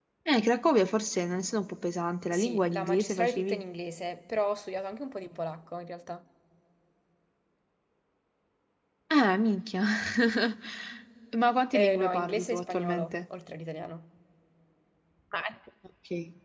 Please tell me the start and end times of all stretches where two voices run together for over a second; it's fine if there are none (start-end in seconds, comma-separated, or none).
2.3-3.6, 11.8-13.2